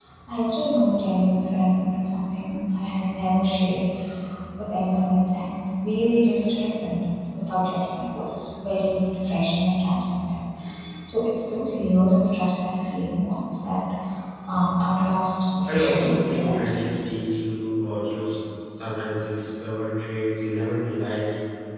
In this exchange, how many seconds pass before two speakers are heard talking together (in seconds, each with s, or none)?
15.7 s